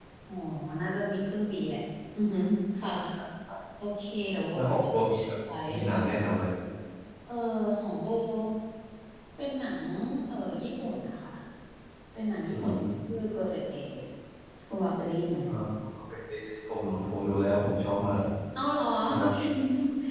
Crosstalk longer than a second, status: none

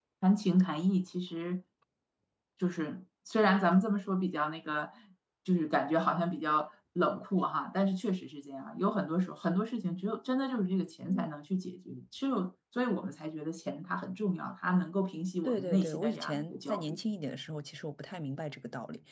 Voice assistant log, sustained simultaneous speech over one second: present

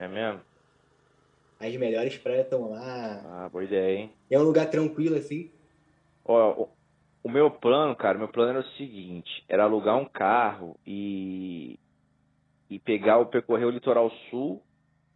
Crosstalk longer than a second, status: none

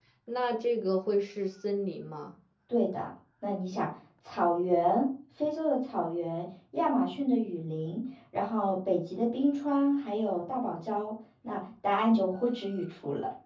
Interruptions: none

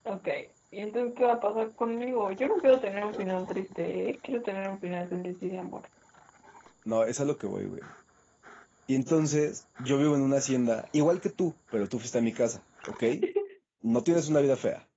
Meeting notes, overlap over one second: none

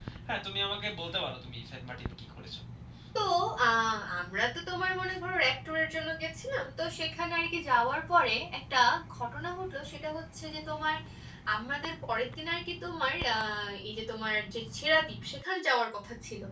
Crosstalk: none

